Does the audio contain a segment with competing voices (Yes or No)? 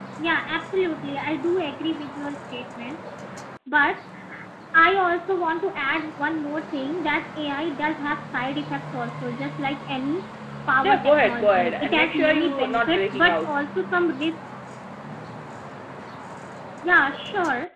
Yes